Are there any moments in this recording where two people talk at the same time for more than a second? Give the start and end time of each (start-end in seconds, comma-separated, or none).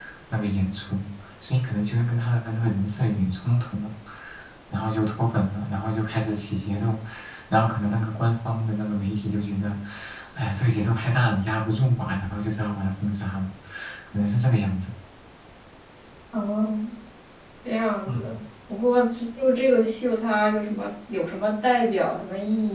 none